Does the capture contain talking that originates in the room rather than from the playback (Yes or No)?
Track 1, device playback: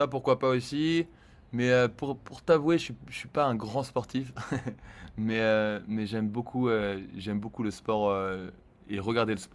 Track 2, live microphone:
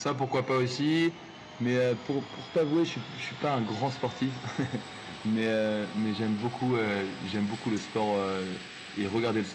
No